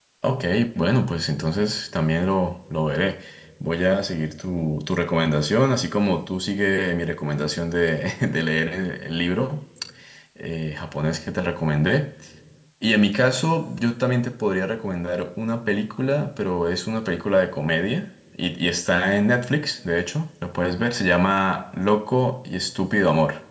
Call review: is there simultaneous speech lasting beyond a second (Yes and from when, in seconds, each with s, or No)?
No